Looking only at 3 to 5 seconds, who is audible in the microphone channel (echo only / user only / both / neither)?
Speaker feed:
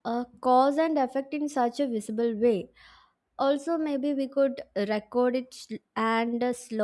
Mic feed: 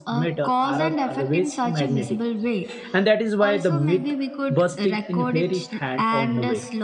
both